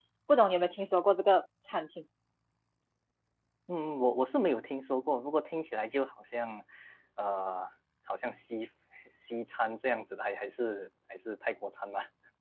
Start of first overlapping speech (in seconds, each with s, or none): none